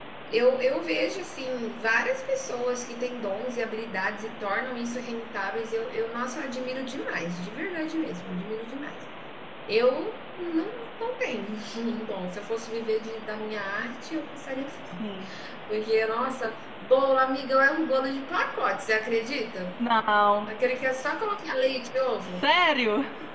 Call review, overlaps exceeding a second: none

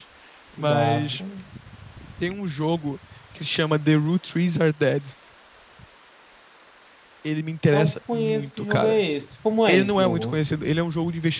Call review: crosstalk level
present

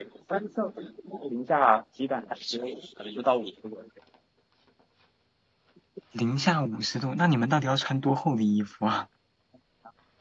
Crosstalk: none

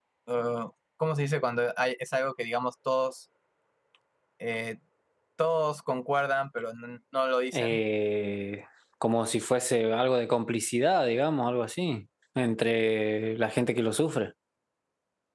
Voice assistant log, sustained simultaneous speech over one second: none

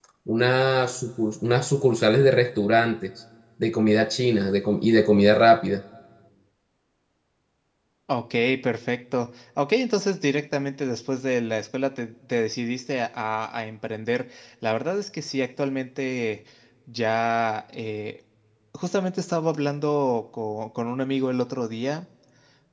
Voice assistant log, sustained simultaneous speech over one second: none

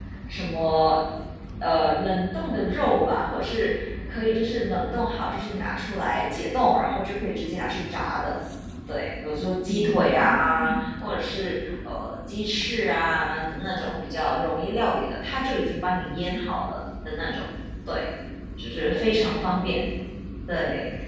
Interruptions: present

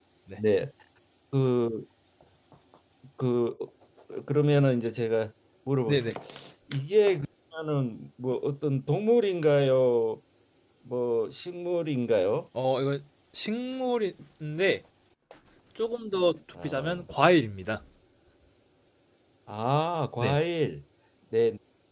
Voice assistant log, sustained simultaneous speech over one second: none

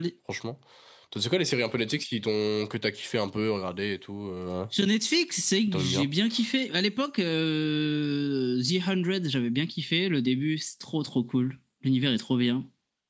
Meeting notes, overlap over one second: none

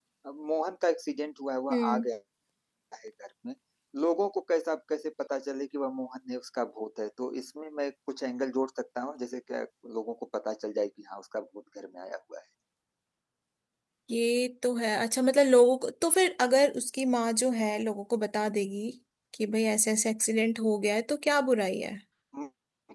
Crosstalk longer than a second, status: none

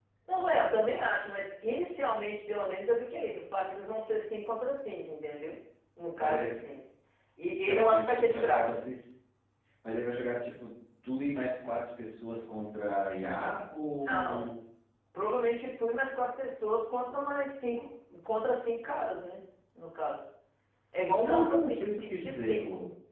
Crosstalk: present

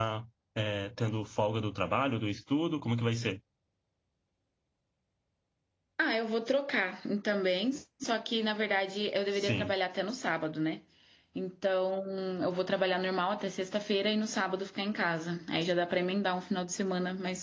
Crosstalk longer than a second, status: none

